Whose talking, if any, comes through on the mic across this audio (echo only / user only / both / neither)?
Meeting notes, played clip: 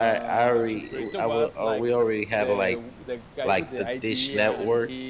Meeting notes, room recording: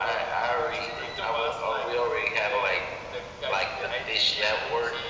echo only